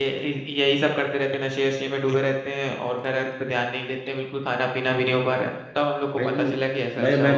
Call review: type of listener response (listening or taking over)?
taking over